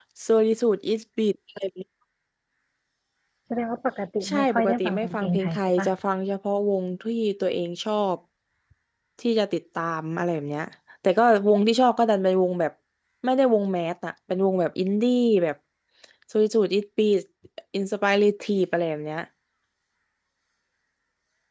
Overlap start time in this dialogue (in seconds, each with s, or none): 4.2 s